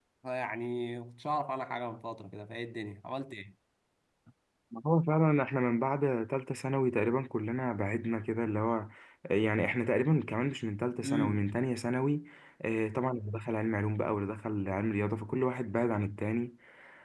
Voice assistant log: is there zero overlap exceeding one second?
Yes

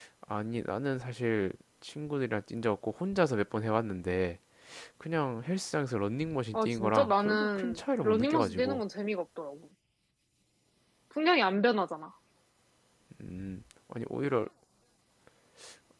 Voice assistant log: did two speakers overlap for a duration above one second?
Yes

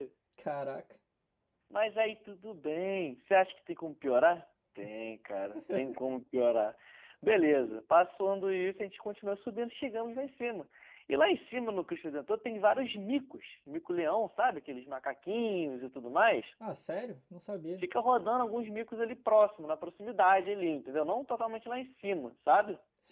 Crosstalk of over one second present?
No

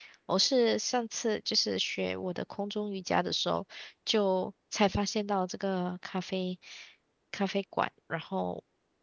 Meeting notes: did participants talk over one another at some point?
No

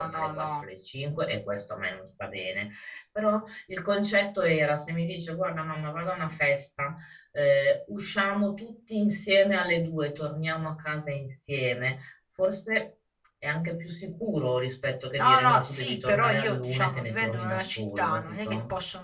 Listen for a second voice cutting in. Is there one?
Yes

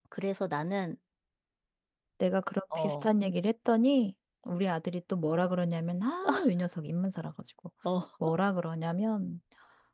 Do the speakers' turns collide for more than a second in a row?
No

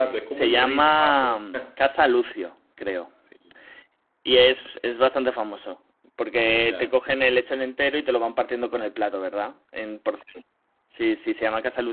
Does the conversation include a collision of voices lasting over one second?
Yes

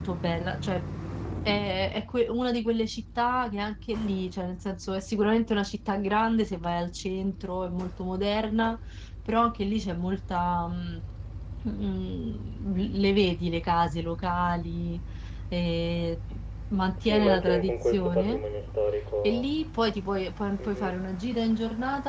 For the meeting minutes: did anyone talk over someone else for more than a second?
Yes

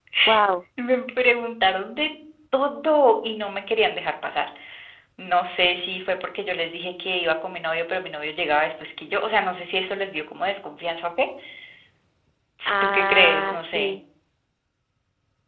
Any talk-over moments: Yes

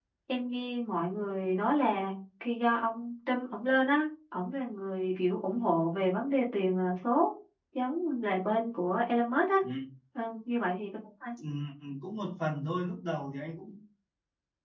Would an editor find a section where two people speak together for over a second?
No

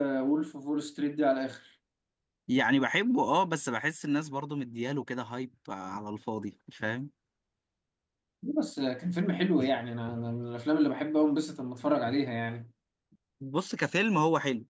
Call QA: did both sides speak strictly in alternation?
Yes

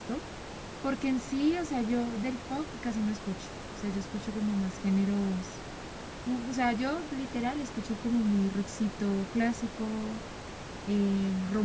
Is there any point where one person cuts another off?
No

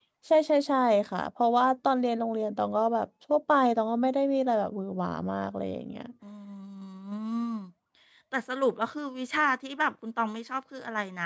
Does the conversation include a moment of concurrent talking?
No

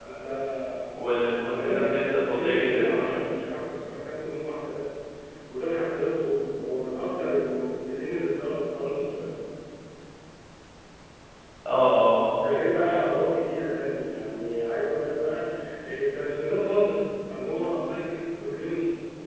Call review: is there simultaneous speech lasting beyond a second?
Yes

